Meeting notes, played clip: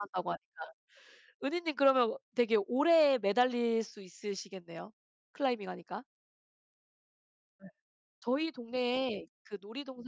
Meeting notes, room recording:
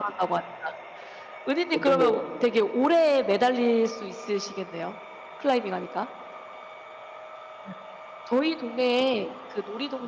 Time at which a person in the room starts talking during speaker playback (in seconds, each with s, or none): 1.7 s